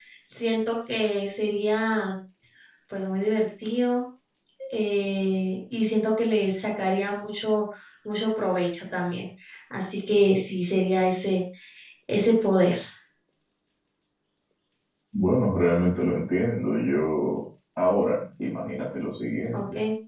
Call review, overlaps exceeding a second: none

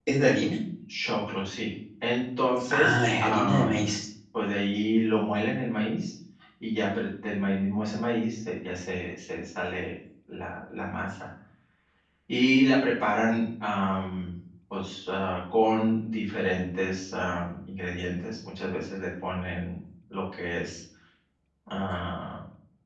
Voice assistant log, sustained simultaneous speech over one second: present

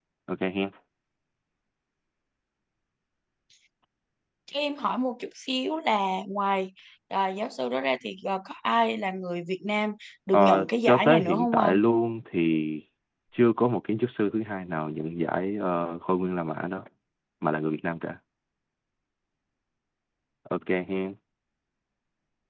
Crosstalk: present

